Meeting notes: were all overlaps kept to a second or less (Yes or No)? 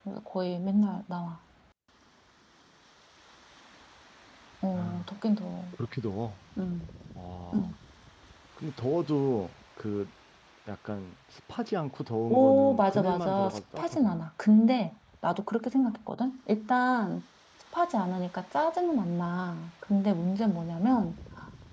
No